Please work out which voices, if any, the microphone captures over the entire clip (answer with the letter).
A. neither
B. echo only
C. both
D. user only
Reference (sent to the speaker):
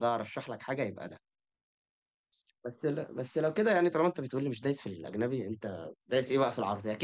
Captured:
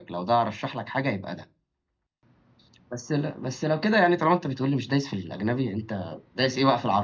B